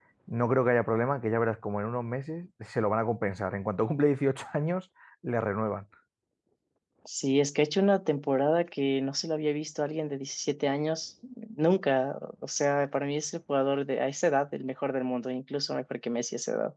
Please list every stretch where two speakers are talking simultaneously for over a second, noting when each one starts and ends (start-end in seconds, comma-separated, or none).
none